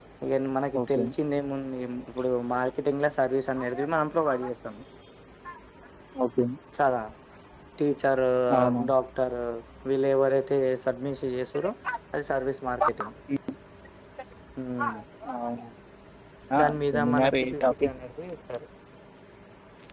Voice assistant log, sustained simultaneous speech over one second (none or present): present